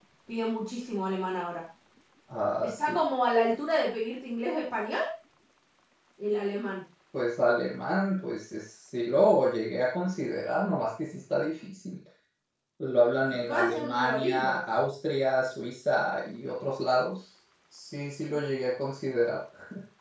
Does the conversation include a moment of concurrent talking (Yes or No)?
Yes